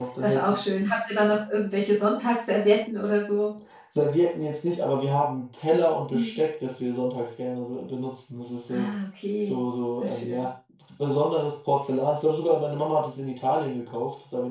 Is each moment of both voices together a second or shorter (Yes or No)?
Yes